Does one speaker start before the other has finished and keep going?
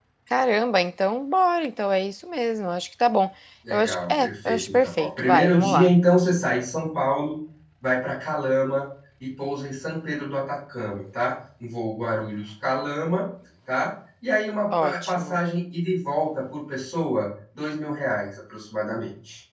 Yes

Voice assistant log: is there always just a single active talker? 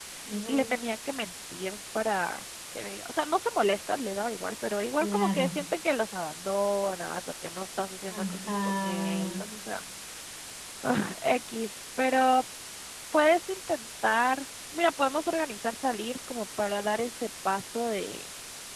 No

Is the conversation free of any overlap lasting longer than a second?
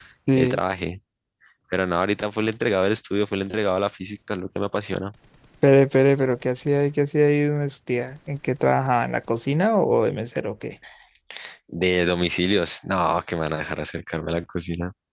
Yes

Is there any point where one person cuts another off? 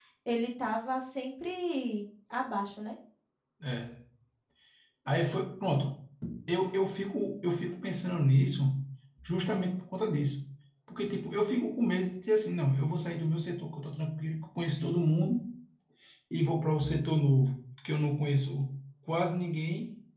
No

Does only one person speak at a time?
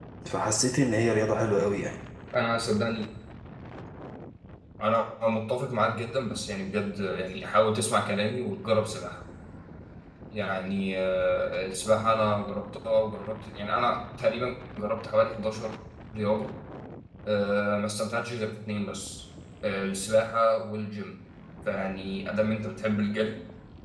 Yes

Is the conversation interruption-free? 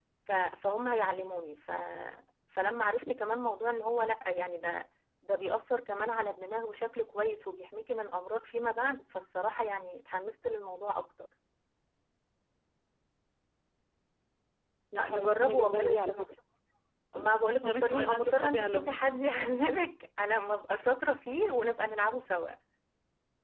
No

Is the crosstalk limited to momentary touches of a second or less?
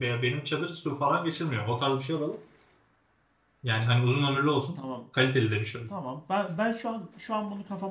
Yes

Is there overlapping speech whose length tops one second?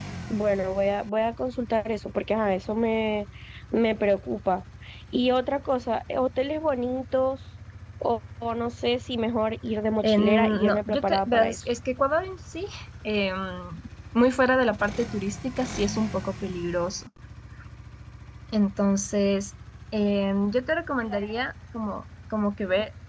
Yes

